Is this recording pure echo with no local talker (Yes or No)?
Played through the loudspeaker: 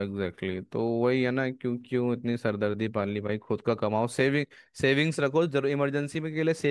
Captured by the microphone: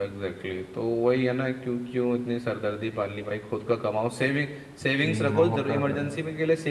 No